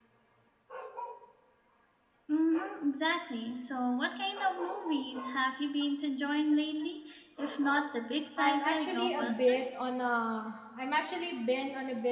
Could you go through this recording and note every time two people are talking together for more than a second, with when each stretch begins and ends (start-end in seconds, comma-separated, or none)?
8.4-9.6